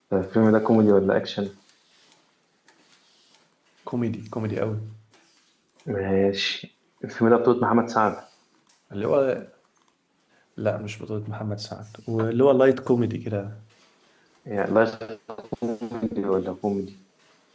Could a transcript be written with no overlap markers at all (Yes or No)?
Yes